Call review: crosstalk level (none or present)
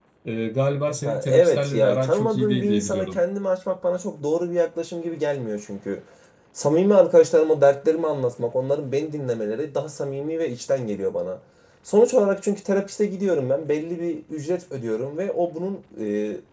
present